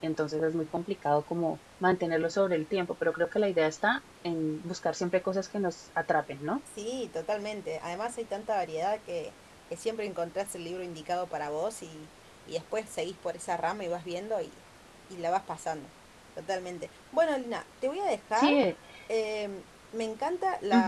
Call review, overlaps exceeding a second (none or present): none